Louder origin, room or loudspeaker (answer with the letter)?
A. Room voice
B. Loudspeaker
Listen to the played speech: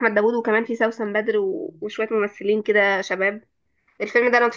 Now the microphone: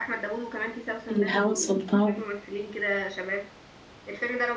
A